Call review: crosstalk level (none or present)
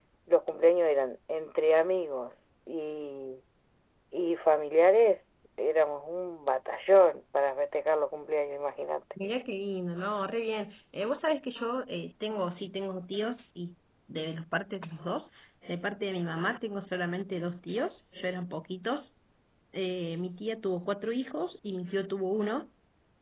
none